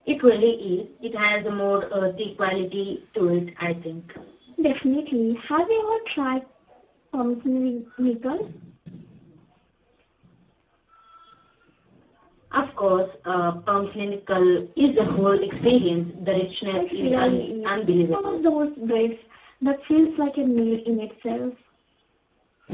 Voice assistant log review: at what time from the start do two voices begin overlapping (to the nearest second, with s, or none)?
17 s